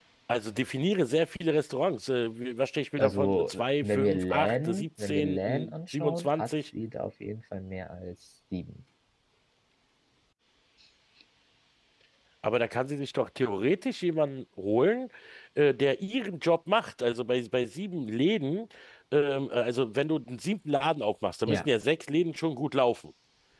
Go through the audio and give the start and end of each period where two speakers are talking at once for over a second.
3.0-6.5

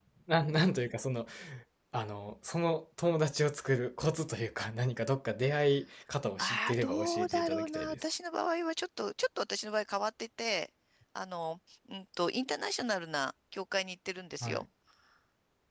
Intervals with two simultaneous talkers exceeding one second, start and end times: 6.4-8.0

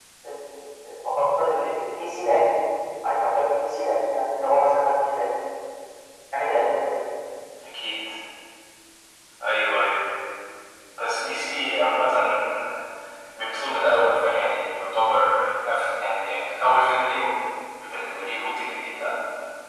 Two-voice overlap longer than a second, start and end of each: none

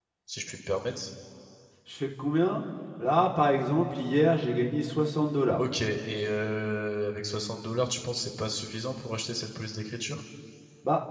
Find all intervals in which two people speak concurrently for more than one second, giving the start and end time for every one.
none

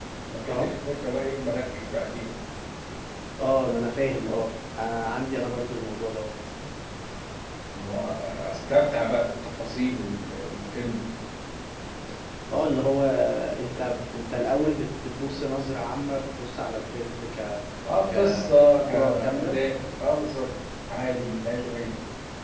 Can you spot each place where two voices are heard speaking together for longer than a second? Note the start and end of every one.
18.1-19.6

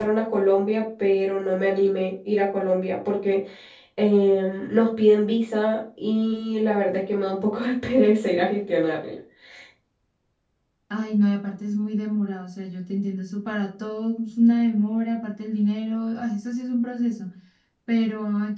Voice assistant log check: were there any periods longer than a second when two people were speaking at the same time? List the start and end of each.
none

